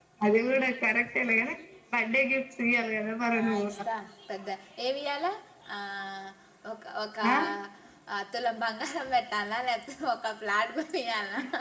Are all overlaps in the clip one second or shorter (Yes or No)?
Yes